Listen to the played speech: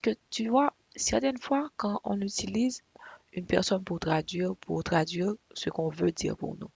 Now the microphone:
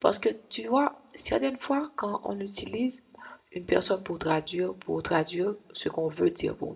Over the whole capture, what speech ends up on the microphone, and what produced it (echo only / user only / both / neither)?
echo only